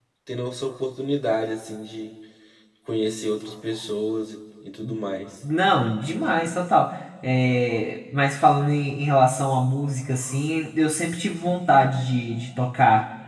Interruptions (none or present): none